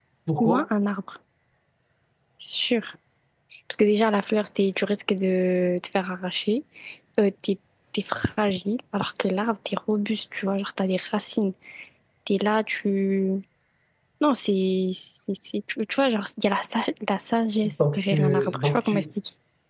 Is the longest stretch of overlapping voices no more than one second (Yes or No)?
No